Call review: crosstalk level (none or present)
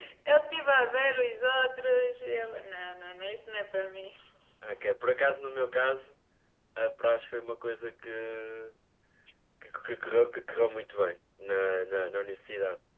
none